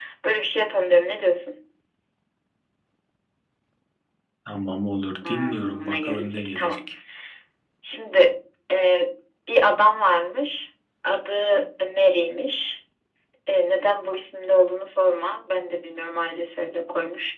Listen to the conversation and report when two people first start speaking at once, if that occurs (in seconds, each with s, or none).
5.3 s